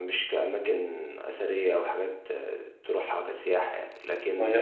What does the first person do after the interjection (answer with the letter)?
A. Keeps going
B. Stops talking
A